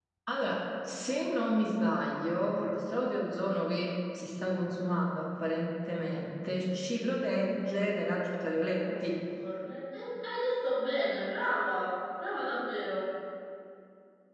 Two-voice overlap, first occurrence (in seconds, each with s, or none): 7.5 s